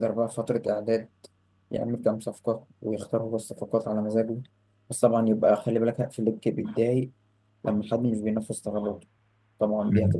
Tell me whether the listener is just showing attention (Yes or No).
Yes